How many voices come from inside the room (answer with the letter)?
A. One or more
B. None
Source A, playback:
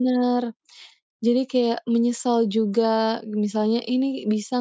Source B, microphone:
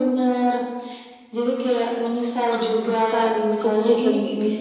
A